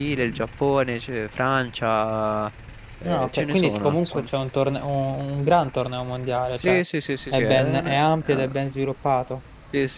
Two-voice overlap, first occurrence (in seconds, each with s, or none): 3.0 s